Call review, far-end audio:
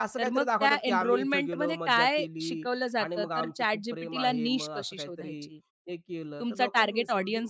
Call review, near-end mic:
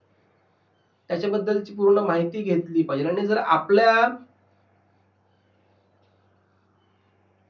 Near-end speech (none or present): present